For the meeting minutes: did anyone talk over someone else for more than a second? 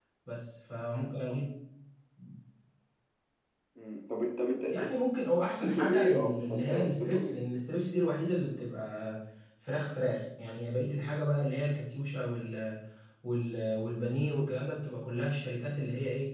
Yes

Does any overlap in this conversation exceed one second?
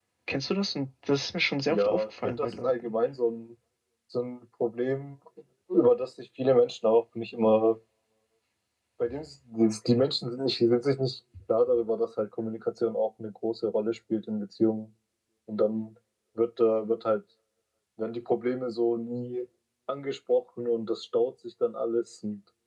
Yes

